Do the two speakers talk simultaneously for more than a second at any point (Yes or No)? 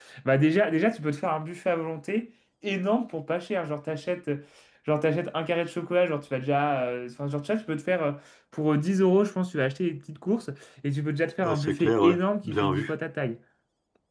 Yes